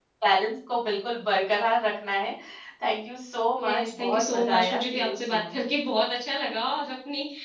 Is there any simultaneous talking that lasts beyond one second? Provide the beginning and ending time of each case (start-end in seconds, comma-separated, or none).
3.6-5.6